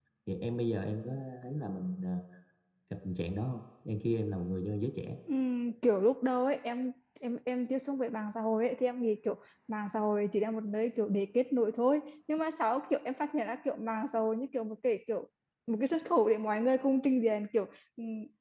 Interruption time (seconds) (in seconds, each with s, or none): none